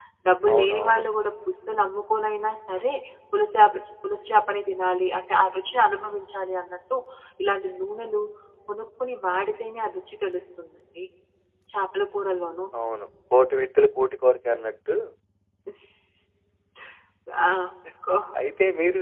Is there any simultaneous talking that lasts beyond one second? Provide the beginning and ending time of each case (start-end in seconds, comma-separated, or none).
none